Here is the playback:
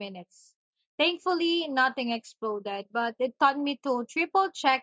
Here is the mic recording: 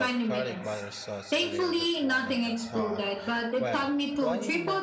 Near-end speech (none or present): present